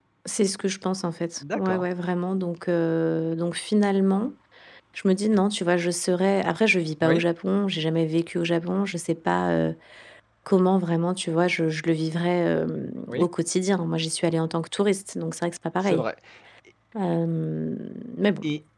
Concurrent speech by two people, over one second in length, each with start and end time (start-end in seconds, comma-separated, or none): none